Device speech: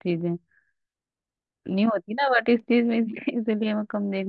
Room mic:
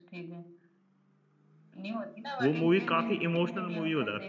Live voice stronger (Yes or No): Yes